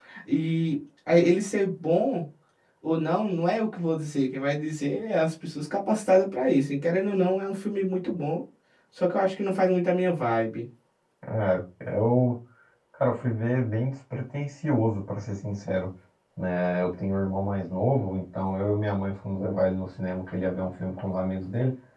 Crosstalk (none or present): none